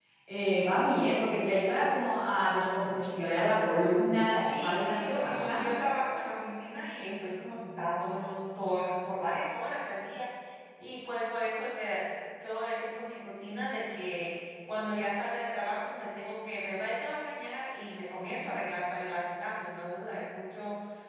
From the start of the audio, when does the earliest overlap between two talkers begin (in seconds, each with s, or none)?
4.3 s